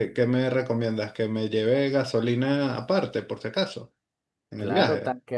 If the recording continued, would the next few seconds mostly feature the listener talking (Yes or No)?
Yes